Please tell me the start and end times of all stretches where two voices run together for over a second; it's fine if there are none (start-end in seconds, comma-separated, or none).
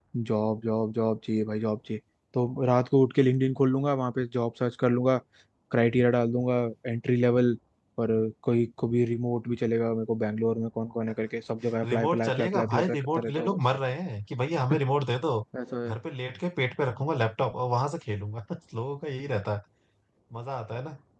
11.8-13.6